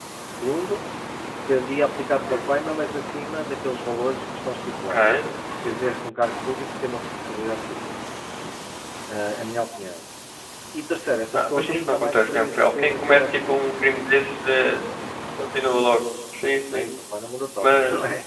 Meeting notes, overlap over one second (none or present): present